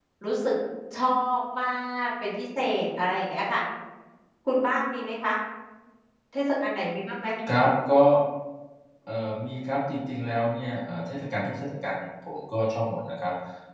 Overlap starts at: none

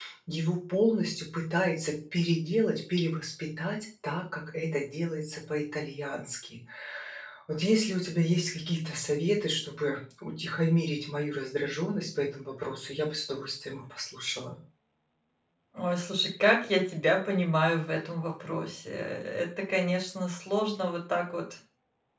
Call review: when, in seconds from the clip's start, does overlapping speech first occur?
none

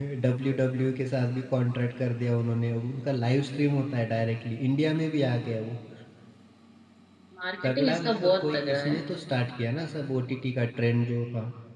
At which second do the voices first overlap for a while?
7.6 s

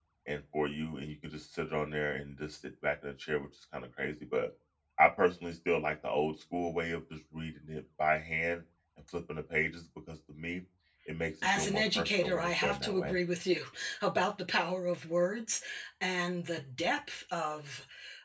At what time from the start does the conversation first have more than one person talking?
11.6 s

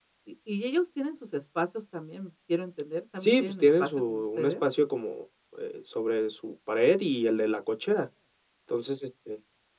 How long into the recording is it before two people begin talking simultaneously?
3.2 s

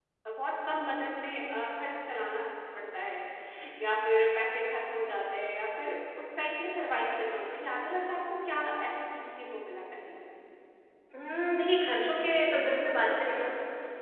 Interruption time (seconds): none

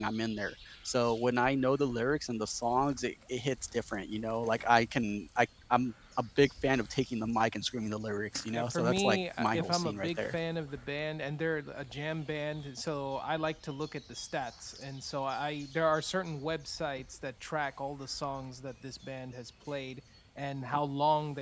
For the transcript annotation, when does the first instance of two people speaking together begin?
8.5 s

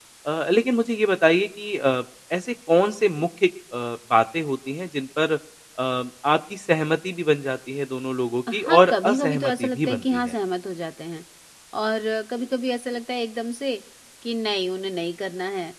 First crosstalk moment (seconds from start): 8.5 s

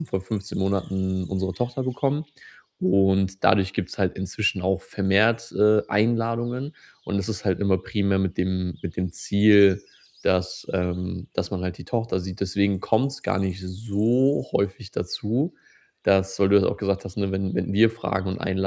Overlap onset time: none

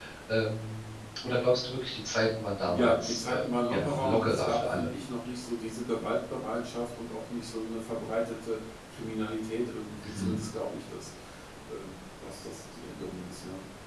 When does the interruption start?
2.7 s

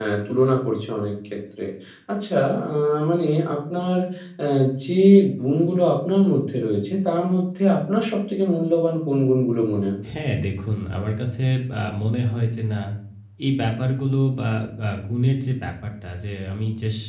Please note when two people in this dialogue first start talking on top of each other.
none

